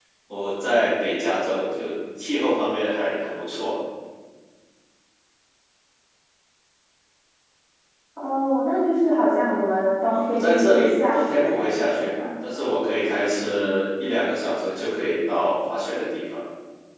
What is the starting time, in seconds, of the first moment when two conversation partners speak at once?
10.1 s

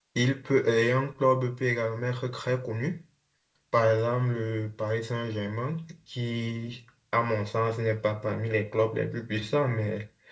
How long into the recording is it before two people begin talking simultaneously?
none

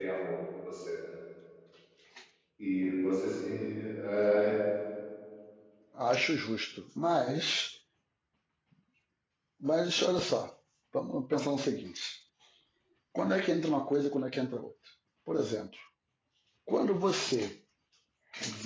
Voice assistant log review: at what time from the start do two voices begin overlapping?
none

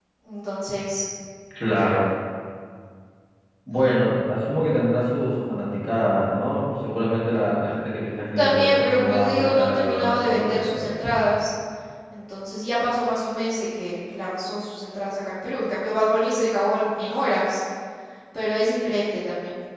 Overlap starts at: 8.4 s

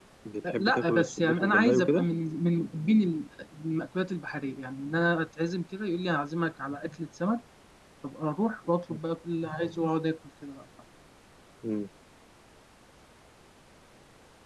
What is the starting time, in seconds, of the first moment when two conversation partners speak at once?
0.6 s

